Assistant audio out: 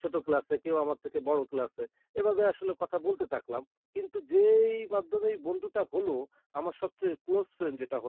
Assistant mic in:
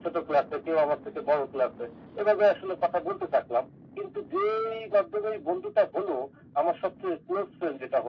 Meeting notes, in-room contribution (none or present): none